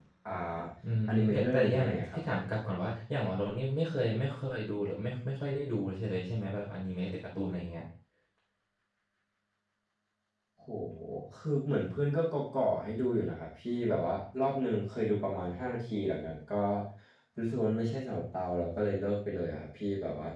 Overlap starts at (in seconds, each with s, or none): 1.1 s